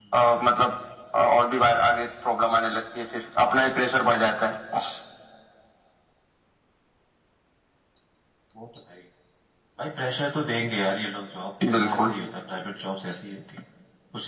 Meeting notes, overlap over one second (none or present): none